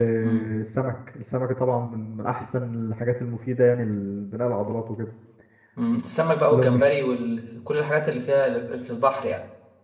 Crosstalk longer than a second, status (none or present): none